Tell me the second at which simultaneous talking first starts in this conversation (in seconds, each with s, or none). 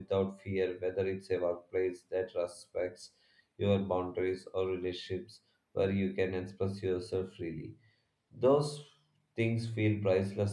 none